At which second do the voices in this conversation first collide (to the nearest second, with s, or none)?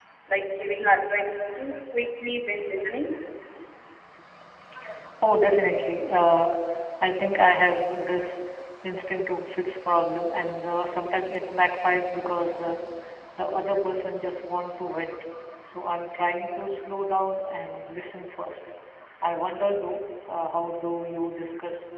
none